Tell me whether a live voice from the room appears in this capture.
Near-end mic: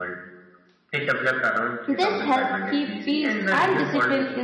Yes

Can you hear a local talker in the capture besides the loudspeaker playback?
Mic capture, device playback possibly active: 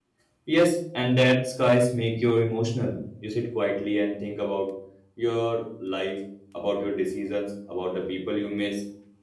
Yes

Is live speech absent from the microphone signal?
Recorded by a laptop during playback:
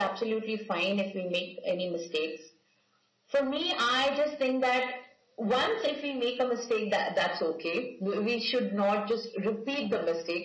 Yes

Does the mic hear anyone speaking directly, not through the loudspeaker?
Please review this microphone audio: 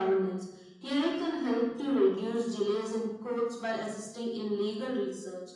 No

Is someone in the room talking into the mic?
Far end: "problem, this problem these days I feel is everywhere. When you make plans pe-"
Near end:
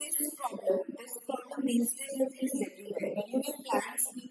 No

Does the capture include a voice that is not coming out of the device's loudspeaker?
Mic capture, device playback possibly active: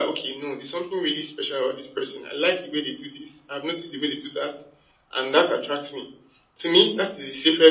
No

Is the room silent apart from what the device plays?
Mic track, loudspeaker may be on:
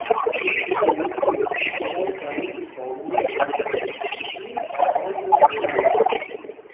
No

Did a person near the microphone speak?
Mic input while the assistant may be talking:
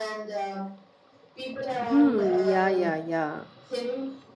Yes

